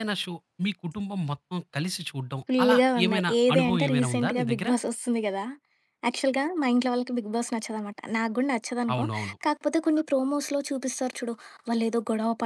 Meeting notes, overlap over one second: present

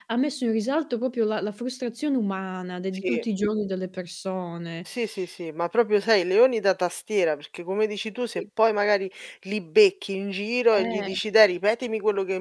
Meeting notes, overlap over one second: none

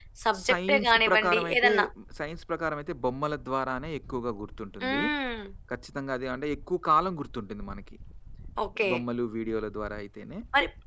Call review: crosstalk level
present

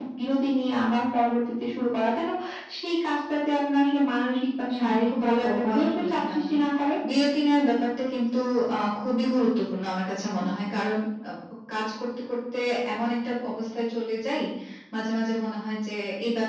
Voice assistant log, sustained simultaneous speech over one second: present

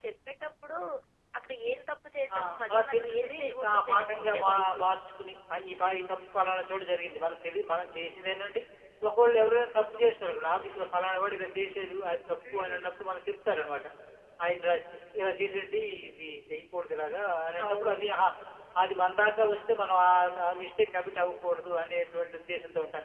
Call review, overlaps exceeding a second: present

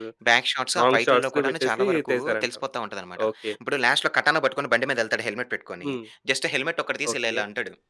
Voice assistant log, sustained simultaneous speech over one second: present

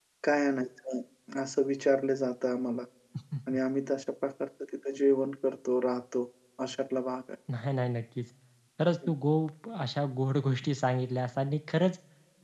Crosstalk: none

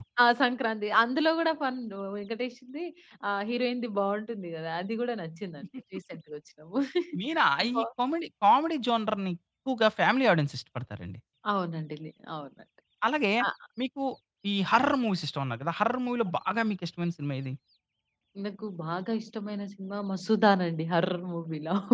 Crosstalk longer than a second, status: none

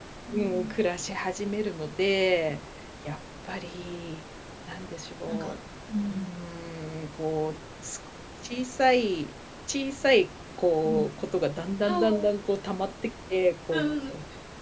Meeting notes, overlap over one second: none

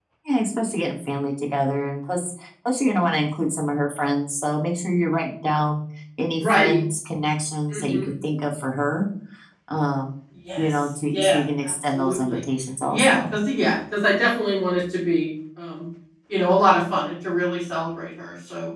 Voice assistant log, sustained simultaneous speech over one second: present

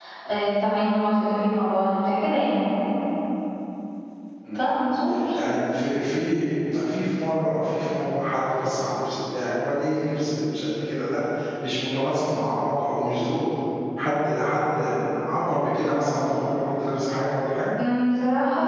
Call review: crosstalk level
none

